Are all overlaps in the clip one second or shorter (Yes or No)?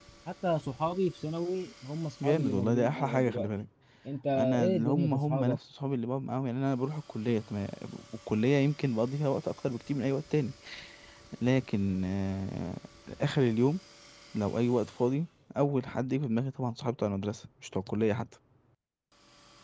No